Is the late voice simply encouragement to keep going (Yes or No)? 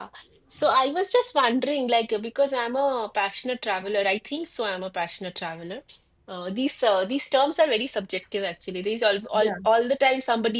Yes